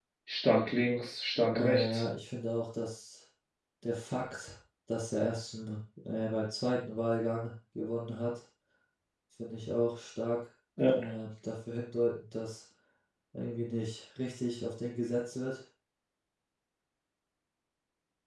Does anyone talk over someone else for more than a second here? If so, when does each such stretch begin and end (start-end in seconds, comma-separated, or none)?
none